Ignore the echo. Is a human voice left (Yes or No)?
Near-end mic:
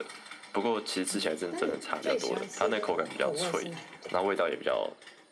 Yes